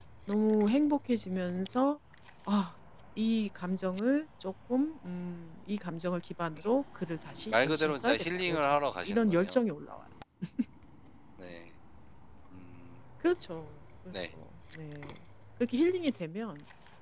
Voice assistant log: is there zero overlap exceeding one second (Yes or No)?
No